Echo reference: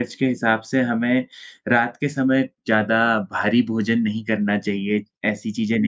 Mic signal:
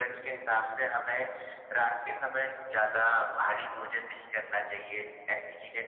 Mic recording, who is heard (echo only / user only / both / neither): echo only